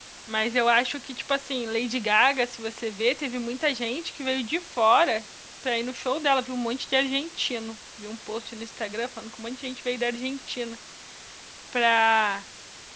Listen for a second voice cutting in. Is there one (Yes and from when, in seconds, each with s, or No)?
No